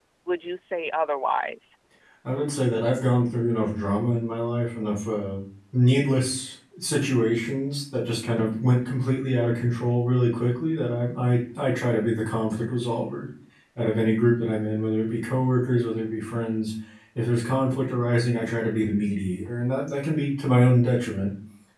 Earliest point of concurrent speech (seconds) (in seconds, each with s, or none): none